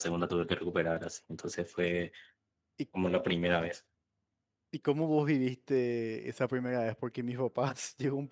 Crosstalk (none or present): none